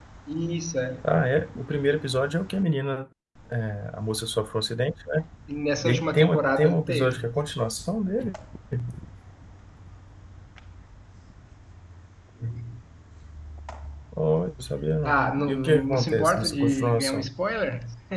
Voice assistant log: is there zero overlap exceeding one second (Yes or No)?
No